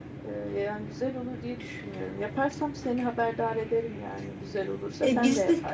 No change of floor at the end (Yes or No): No